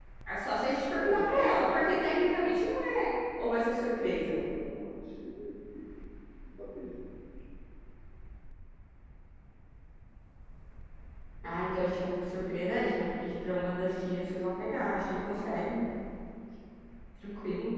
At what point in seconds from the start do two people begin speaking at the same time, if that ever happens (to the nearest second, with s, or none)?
1 s